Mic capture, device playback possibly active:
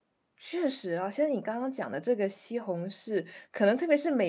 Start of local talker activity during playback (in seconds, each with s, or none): 0.4 s